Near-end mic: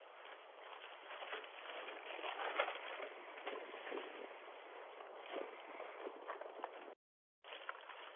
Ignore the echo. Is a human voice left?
No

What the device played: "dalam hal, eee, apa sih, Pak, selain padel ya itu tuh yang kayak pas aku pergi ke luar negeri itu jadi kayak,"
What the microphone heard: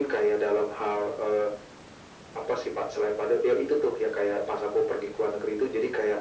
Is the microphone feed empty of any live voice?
Yes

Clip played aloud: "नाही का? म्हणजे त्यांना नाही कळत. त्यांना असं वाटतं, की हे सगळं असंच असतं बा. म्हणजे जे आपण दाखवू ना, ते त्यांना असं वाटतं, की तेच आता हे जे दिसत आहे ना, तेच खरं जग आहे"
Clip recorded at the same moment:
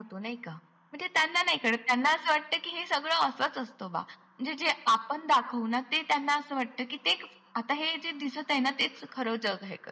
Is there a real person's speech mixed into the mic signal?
No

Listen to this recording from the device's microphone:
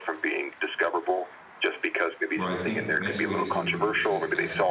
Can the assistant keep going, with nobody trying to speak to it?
No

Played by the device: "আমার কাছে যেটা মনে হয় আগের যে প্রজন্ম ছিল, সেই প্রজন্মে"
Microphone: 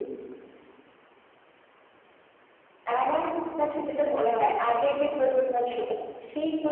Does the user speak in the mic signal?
No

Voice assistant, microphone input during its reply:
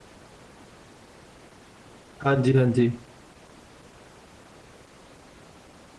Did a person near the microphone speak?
Yes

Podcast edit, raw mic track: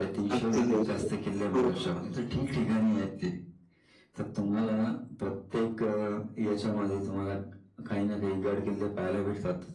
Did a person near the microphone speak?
Yes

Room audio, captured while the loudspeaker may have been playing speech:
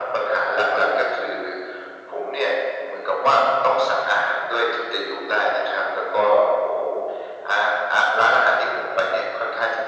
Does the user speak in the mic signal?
No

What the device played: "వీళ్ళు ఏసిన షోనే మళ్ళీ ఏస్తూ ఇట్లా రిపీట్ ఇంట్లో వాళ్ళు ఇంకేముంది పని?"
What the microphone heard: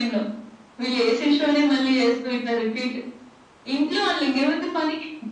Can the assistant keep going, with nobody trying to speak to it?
Yes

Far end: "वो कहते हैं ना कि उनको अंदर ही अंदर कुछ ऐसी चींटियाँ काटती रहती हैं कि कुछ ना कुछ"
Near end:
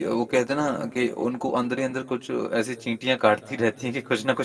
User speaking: No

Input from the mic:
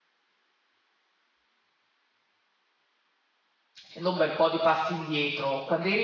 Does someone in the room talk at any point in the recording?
Yes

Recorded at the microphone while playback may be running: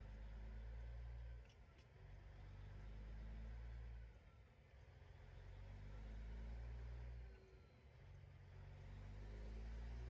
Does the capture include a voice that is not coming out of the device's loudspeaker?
No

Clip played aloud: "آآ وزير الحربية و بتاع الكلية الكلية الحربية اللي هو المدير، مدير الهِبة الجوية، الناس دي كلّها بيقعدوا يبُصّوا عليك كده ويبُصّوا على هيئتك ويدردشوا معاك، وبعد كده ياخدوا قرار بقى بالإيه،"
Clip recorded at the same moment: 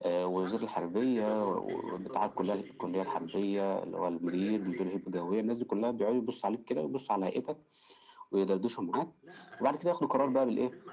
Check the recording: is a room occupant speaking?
Yes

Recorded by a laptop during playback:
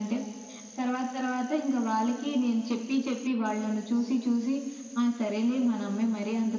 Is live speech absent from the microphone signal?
Yes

